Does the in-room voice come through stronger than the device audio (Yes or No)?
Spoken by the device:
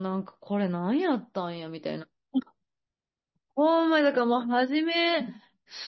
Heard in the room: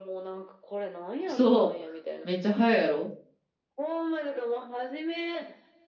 Yes